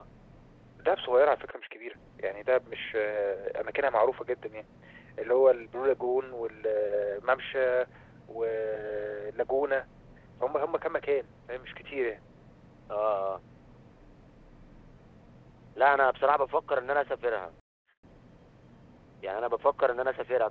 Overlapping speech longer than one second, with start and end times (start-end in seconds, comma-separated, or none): none